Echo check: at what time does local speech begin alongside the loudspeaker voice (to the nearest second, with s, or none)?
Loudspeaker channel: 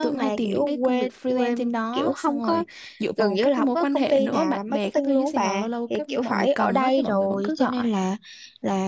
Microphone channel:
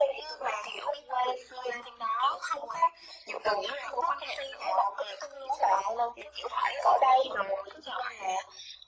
none